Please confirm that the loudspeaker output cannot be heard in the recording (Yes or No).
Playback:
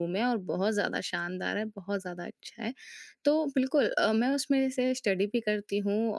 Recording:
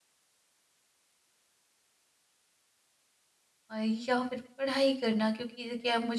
Yes